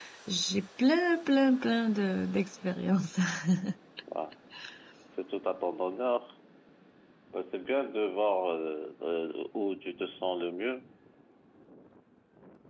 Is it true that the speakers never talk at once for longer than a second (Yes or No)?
Yes